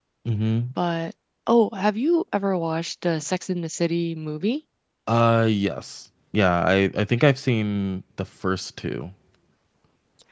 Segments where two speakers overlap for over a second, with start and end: none

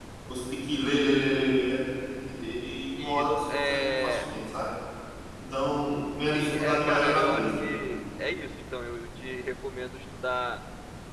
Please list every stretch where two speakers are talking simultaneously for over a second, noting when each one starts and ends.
3.0-4.2, 6.3-7.7

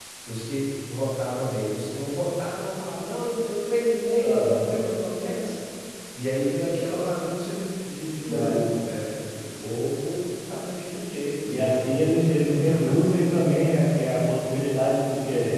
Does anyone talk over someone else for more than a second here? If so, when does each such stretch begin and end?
11.5-13.1

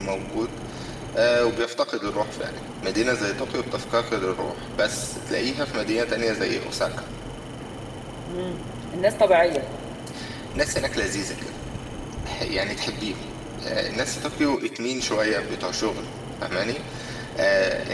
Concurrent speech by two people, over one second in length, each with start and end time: none

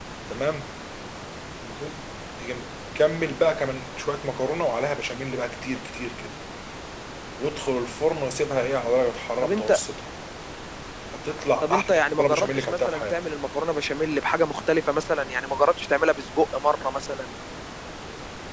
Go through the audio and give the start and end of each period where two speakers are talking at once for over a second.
11.6-13.2

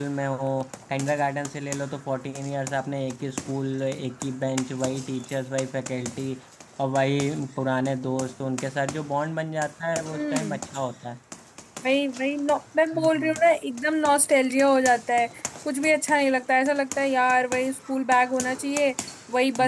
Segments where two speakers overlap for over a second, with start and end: none

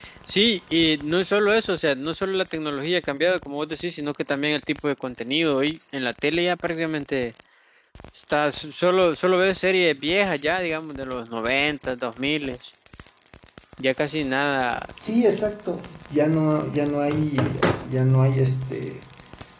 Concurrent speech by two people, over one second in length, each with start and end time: none

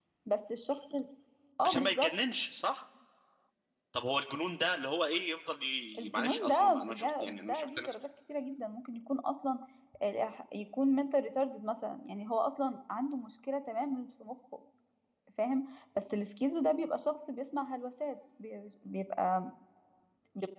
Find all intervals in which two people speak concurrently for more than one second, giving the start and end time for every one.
6.0-8.0

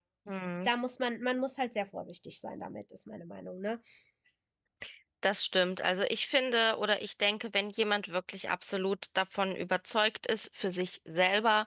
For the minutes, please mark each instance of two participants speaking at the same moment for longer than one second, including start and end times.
none

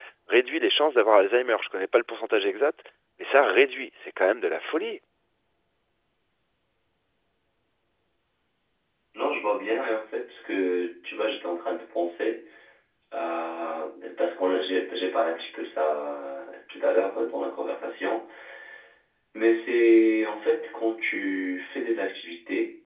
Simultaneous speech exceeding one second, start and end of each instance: none

